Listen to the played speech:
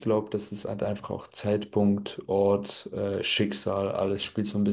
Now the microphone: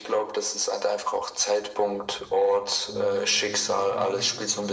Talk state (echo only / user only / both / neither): both